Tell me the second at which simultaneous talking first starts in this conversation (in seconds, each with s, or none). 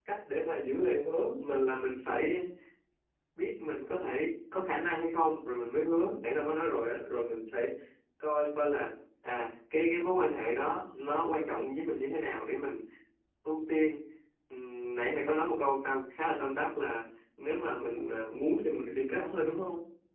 17.8 s